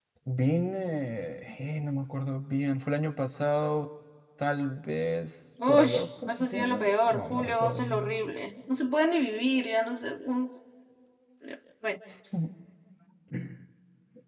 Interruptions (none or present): present